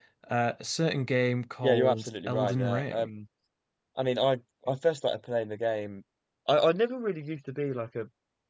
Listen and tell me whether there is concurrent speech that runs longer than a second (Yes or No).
Yes